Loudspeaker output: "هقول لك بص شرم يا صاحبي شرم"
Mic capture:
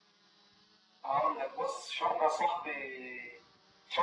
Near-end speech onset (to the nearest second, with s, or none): none